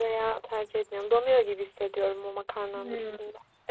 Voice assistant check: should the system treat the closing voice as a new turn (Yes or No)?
Yes